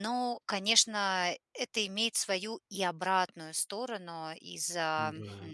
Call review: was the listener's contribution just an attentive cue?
Yes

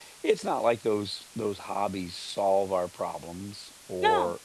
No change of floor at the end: Yes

